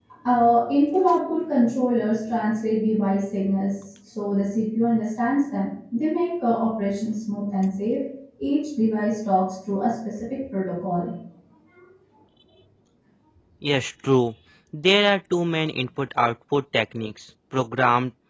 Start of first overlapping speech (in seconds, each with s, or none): none